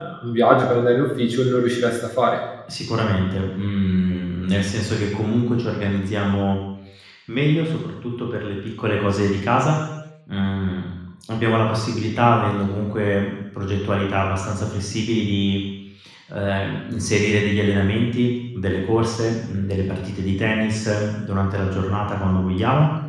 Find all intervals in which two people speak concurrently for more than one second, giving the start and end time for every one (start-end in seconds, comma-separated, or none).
none